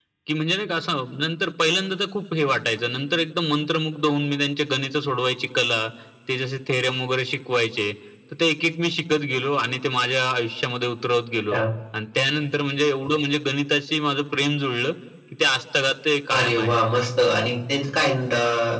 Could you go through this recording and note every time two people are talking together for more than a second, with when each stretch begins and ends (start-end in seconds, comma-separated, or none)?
none